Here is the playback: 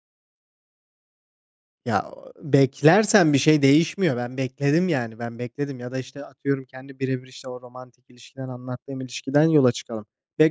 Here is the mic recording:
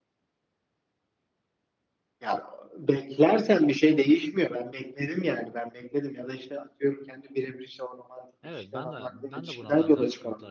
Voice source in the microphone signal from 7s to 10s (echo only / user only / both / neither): both